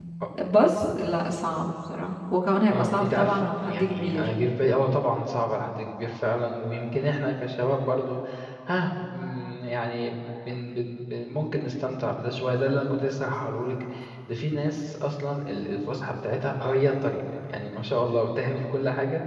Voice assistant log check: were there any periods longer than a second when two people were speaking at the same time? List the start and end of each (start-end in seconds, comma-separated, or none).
2.7-4.3